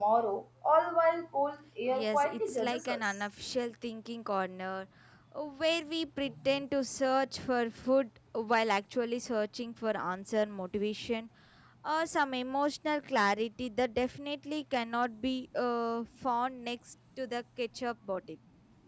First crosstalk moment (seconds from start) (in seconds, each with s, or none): 1.9 s